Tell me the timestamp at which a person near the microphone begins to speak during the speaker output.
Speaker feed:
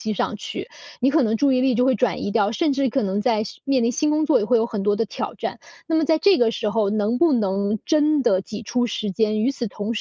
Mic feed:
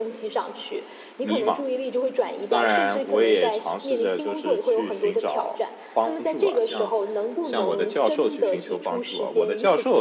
1.2 s

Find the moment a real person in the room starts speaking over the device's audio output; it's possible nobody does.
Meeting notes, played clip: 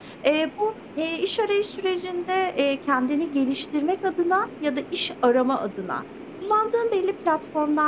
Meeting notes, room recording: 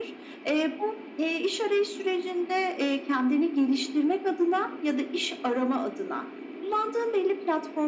none

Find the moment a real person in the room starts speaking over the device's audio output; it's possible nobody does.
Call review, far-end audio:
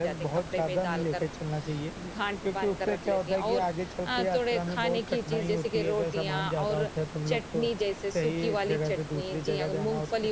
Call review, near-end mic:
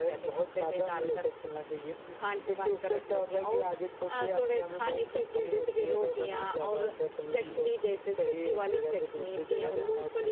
7.3 s

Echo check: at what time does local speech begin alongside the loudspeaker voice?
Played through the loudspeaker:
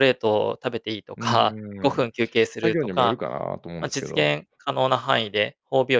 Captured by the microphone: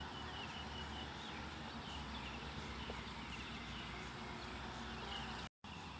none

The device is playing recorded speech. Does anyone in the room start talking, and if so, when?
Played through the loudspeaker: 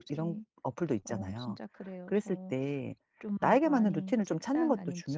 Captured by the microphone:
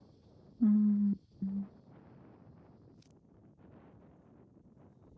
0.6 s

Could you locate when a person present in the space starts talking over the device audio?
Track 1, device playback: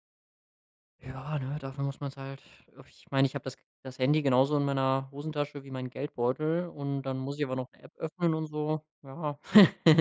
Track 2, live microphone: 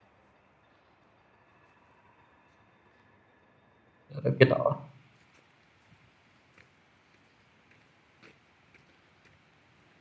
4.2 s

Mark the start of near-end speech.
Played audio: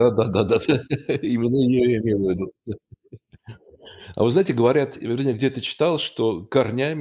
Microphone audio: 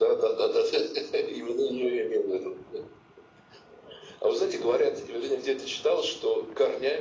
none

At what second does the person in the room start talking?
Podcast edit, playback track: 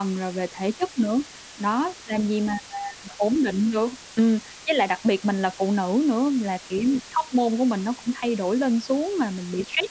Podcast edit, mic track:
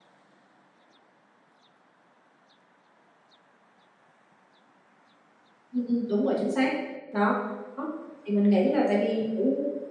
5.7 s

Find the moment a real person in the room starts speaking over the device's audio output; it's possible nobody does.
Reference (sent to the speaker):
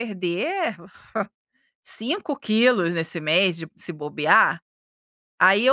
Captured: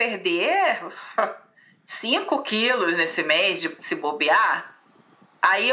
none

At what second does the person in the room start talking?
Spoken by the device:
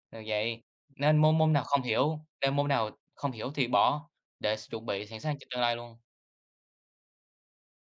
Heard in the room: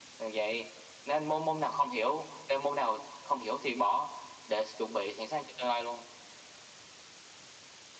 none

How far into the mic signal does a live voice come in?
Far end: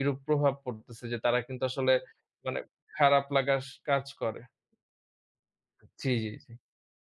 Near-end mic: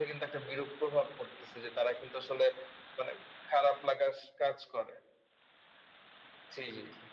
none

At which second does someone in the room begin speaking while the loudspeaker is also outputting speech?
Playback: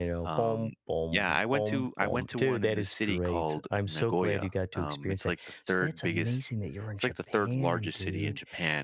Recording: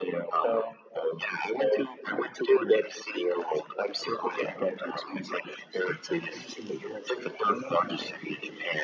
none

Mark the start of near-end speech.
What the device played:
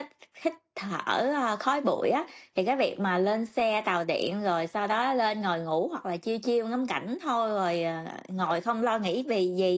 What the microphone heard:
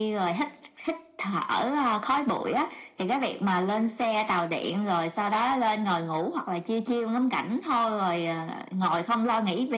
none

